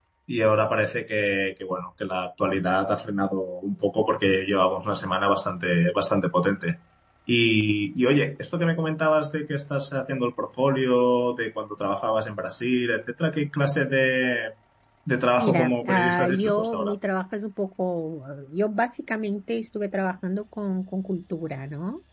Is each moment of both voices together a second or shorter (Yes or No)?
No